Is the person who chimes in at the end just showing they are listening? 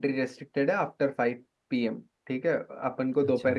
Yes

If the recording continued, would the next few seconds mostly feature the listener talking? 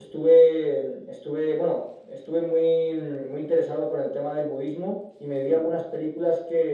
No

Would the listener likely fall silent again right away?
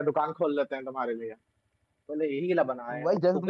No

